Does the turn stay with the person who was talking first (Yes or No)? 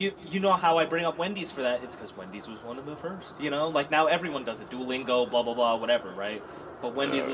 No